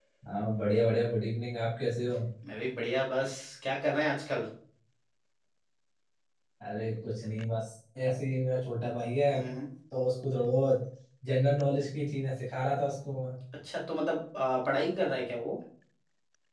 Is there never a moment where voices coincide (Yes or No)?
Yes